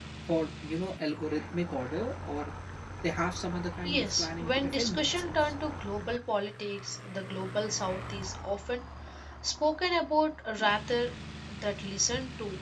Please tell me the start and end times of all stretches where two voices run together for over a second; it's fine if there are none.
3.8-5.5

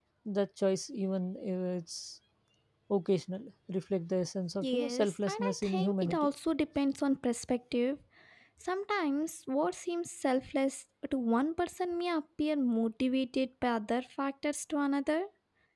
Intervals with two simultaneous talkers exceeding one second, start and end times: 4.6-6.3

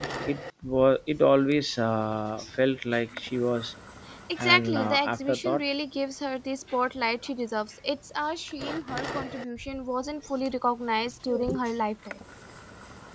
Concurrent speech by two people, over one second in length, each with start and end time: 4.4-5.7

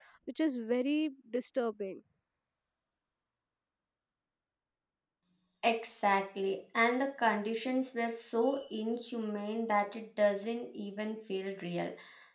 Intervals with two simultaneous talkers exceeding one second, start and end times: none

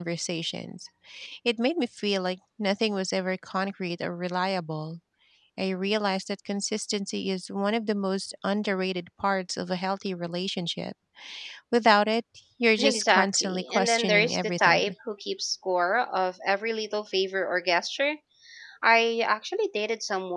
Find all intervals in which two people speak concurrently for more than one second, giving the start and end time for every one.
12.8-14.9

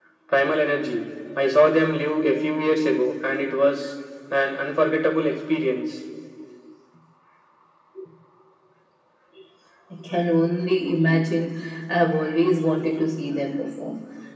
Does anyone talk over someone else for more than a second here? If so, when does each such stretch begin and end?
none

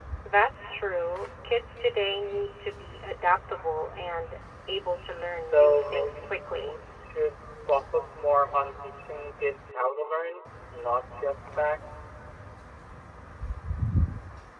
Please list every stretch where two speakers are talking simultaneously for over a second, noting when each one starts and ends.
5.5-6.8

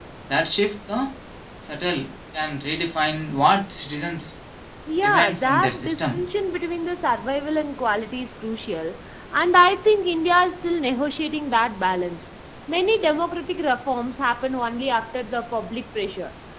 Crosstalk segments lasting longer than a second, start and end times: 5.0-6.2

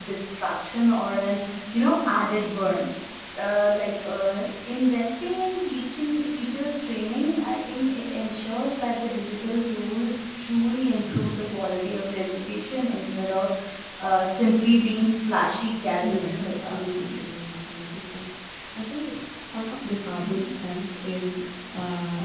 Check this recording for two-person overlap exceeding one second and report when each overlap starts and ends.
16.0-17.2

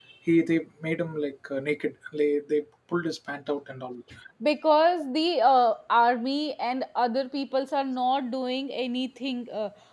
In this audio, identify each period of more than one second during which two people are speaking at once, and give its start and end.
none

